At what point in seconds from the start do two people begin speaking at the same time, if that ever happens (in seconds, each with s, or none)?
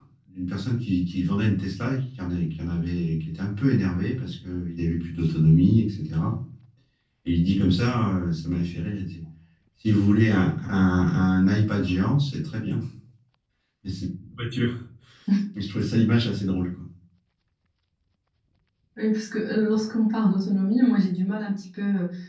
none